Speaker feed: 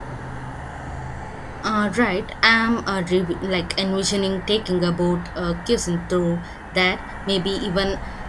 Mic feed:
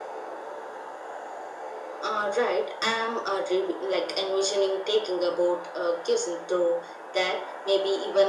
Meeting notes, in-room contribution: none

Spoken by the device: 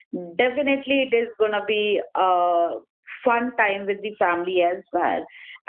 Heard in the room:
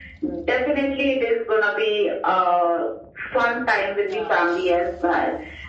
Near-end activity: present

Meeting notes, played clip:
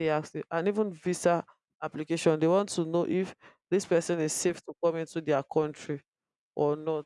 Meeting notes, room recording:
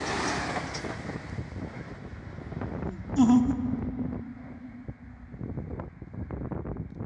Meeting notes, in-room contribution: present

